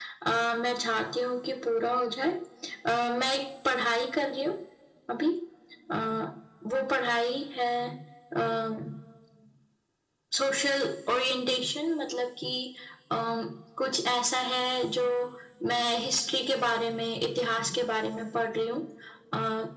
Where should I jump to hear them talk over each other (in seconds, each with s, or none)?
none